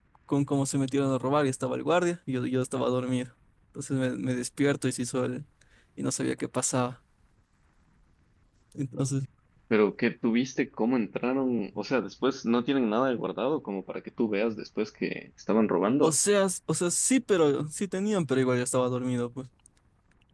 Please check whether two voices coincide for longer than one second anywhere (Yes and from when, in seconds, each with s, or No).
No